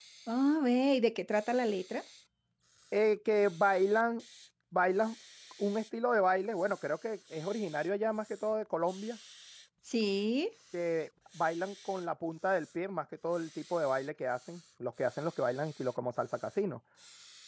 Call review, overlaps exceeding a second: none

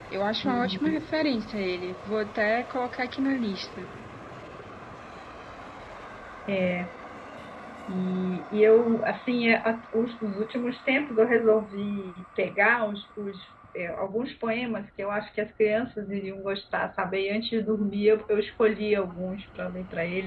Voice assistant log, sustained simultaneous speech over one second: none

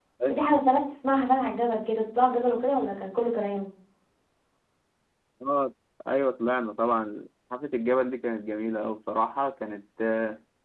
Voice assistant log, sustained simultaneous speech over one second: none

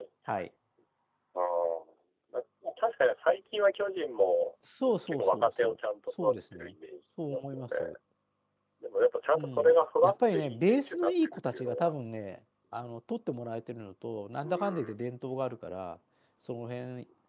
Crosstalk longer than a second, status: present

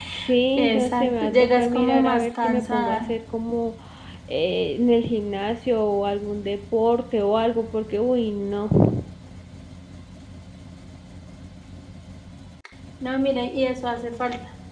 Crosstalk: present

